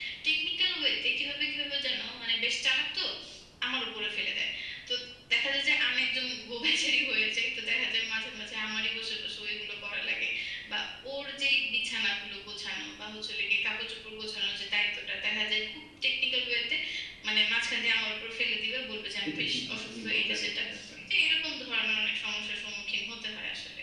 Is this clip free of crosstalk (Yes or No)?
No